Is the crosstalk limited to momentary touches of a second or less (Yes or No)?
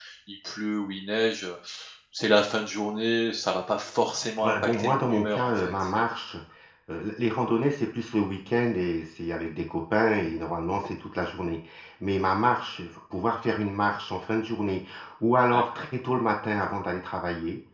No